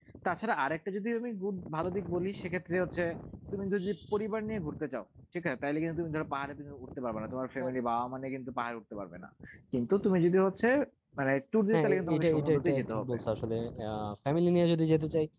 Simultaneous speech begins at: 12 s

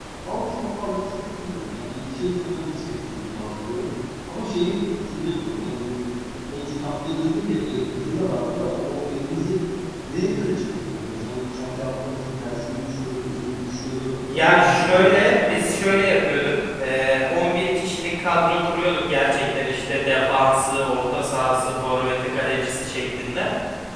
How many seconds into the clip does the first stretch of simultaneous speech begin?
14 s

